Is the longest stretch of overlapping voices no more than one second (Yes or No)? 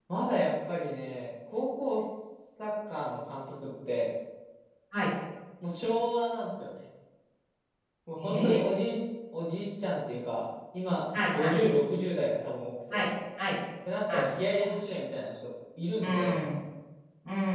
Yes